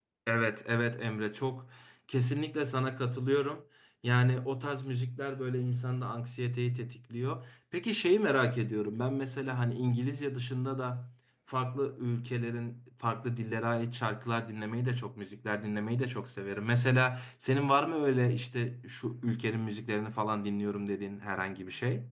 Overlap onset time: none

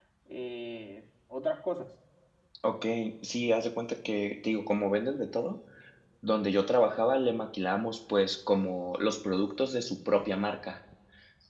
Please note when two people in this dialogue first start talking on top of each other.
none

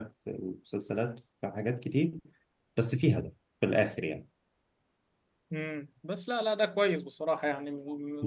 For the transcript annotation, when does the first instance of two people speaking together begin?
none

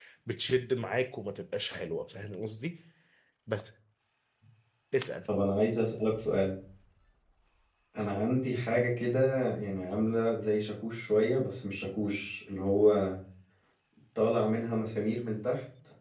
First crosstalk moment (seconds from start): none

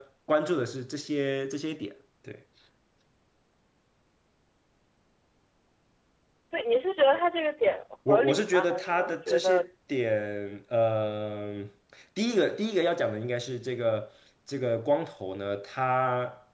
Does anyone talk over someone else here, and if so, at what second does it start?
8.0 s

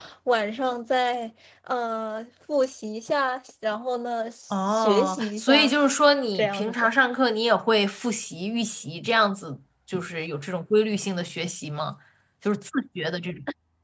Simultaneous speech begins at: 4.5 s

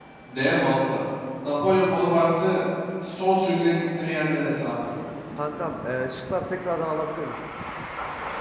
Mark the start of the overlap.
none

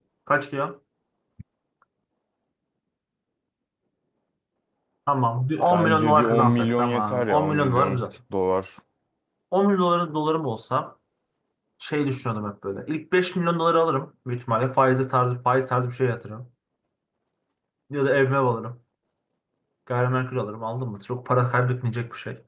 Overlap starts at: 5.7 s

